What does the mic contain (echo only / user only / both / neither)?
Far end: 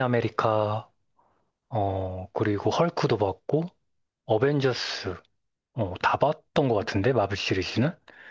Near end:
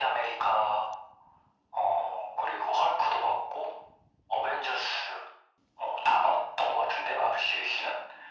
echo only